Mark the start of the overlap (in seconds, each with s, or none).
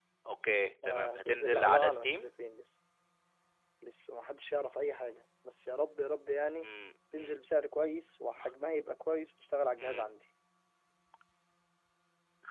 0.9 s